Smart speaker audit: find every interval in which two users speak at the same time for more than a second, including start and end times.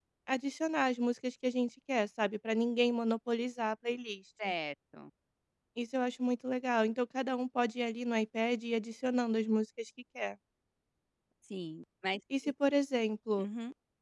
none

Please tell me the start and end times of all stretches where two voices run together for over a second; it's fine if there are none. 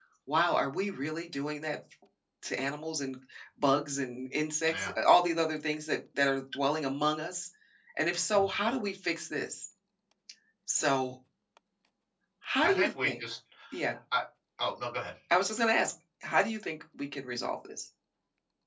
none

